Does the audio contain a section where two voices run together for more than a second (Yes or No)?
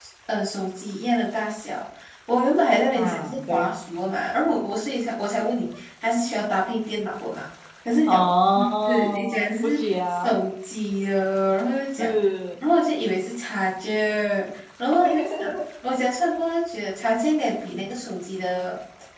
Yes